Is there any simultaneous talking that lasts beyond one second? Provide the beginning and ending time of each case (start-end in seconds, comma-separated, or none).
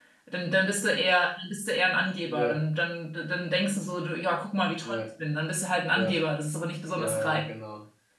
none